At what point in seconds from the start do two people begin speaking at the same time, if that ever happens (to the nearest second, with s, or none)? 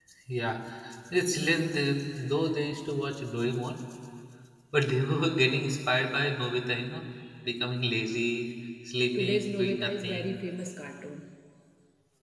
9 s